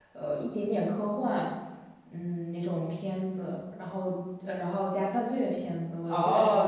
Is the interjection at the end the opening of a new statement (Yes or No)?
Yes